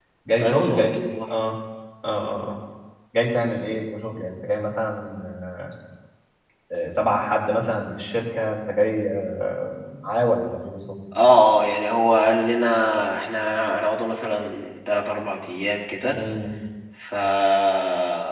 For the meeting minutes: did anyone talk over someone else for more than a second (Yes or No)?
No